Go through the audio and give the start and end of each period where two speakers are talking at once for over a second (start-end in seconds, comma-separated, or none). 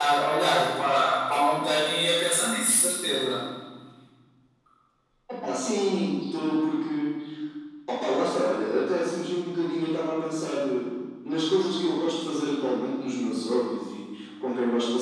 none